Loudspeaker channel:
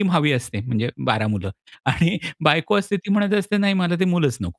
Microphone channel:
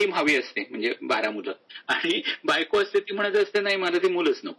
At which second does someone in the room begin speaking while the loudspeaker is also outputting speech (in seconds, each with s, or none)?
none